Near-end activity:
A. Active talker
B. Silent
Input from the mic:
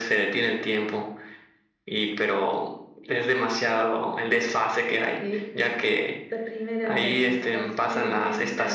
B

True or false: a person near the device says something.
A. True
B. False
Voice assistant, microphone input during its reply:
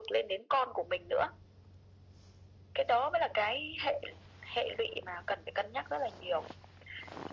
B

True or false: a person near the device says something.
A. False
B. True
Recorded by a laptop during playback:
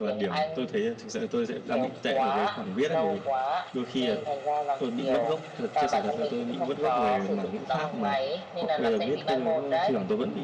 B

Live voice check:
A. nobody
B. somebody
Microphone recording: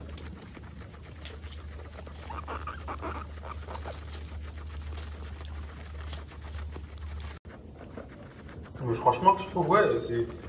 B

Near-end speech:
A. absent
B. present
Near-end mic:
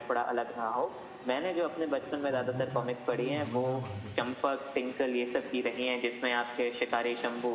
B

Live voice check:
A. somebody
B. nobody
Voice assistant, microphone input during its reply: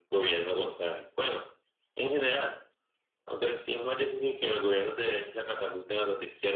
B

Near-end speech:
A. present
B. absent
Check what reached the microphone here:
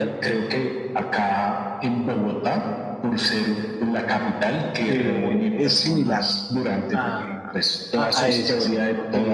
A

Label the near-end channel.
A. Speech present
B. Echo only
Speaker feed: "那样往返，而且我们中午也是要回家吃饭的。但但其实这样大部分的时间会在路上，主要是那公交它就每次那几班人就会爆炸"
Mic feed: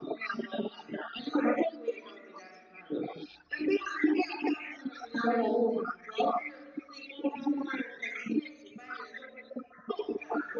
B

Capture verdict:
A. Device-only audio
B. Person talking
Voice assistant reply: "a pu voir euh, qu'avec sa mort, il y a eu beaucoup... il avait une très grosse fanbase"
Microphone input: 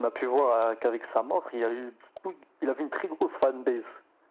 A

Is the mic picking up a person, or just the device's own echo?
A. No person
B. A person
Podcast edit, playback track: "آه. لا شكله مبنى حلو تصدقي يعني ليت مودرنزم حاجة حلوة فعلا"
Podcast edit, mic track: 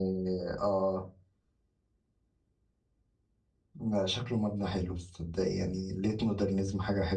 A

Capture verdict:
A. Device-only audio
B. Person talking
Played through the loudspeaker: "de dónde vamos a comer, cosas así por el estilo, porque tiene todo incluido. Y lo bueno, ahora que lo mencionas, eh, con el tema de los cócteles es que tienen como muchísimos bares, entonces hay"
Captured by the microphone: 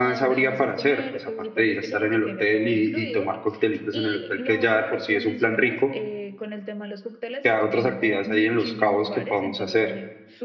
B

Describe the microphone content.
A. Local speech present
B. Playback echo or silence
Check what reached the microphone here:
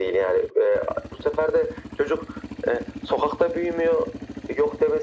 B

